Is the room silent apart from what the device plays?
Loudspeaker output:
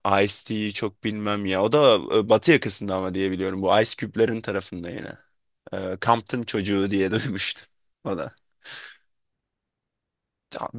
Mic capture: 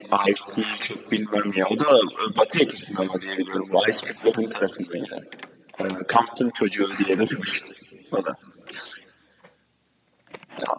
Yes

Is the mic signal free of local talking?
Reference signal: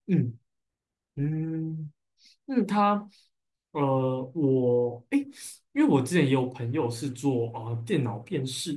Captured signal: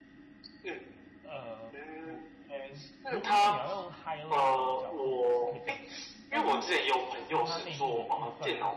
No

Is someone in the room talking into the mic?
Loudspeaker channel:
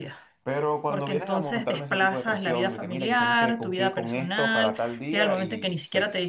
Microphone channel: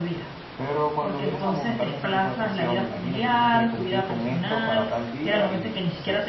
No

